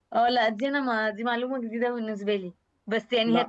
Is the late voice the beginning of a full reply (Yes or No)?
No